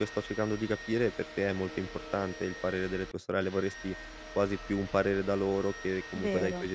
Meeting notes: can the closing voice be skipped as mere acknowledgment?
Yes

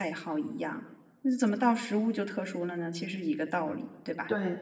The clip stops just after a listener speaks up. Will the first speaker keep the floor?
No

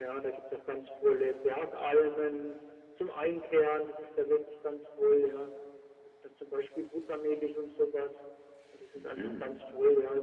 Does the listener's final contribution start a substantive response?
No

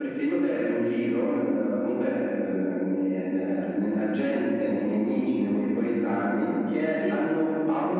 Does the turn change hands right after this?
No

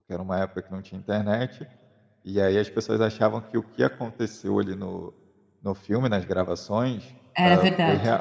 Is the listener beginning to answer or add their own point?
No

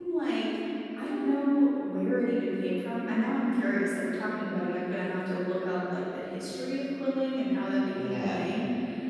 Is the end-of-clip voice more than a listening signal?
No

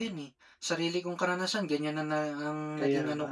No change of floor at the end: Yes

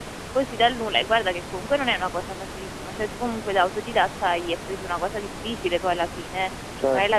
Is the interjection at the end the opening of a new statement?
No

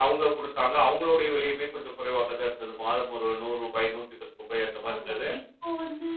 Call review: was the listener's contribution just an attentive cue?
No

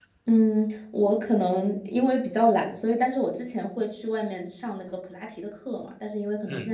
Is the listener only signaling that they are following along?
Yes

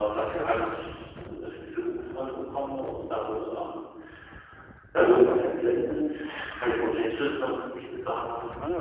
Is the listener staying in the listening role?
Yes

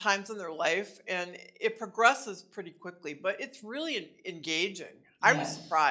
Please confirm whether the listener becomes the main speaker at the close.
Yes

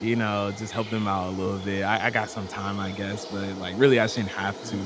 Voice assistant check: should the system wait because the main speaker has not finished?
No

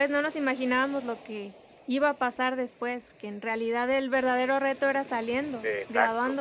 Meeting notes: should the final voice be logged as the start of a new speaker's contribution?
Yes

